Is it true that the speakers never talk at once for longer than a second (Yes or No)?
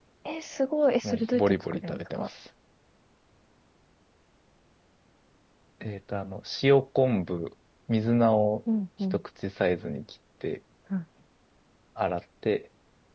No